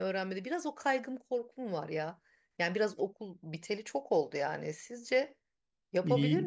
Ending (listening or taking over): taking over